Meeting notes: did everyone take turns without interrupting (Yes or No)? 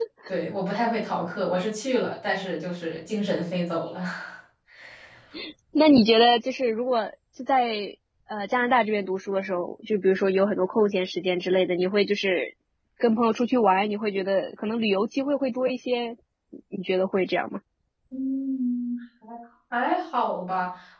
Yes